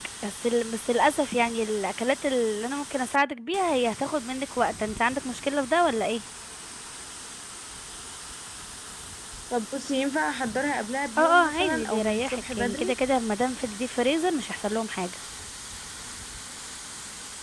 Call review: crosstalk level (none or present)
present